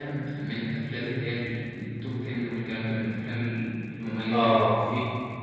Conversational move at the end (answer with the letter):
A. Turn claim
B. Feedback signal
A